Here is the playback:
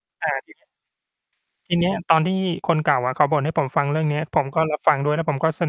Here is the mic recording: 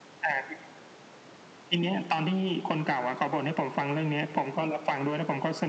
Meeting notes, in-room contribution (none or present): none